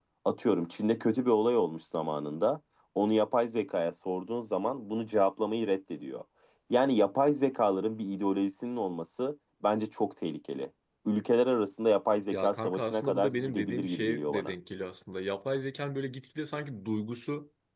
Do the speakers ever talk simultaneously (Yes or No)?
Yes